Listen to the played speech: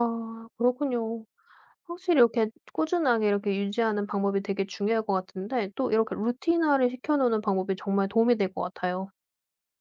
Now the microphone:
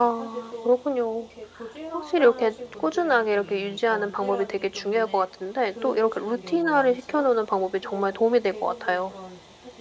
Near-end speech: present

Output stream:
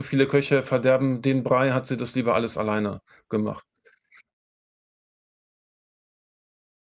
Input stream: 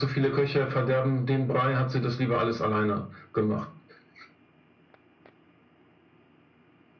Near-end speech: none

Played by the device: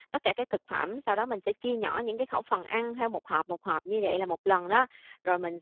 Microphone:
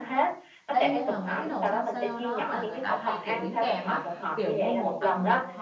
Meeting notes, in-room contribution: present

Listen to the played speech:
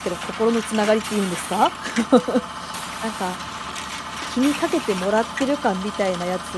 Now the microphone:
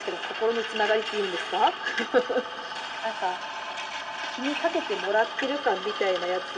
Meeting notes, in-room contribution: none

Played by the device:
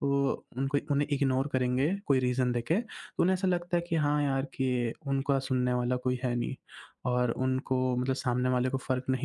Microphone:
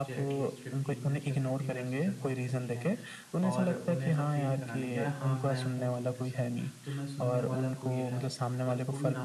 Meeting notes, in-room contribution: present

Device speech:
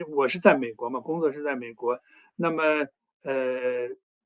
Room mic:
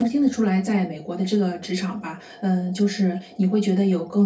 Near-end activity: present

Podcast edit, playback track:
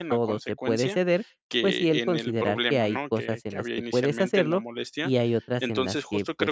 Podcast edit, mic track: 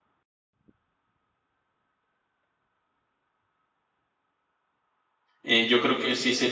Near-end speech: present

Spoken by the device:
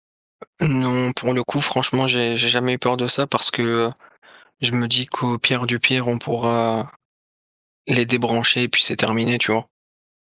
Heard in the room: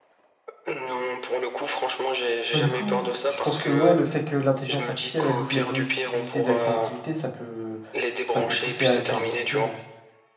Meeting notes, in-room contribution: present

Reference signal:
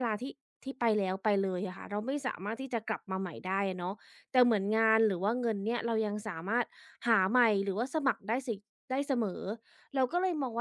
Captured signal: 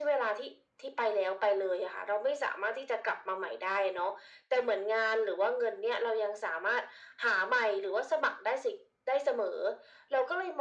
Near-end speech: none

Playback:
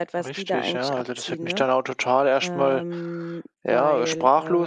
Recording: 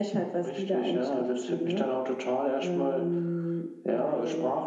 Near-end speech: none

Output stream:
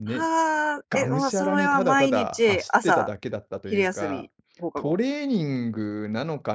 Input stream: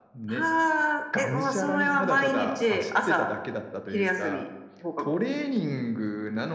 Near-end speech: none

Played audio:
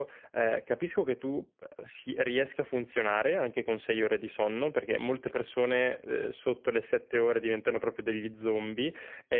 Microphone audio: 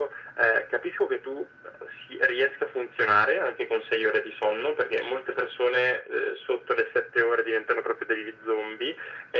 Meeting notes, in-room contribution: none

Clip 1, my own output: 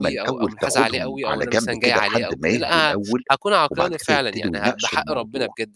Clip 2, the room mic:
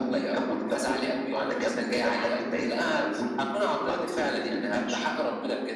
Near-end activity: none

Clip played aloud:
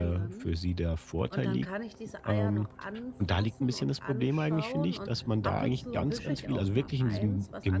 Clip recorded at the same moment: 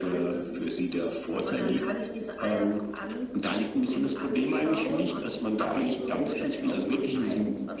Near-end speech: none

